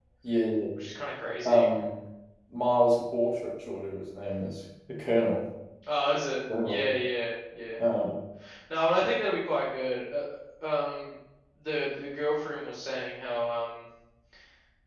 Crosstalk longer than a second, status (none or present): none